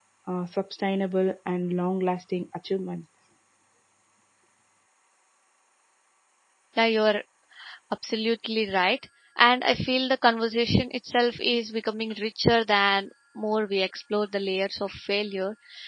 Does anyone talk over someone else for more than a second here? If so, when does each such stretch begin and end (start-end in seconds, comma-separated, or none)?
none